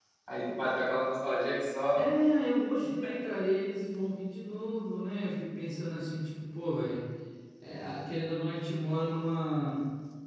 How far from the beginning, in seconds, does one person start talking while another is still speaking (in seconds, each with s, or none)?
none